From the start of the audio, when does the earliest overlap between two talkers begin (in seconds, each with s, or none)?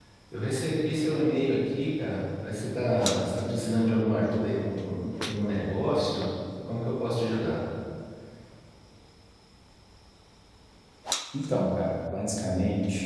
none